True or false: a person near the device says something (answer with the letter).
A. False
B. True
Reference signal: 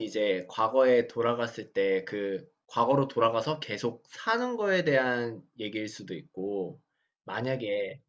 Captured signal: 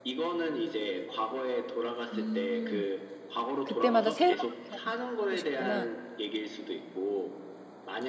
B